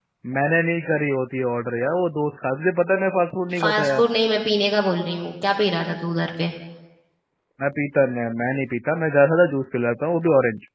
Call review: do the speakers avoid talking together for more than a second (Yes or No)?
Yes